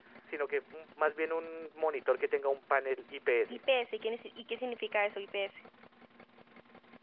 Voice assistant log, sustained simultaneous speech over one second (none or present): none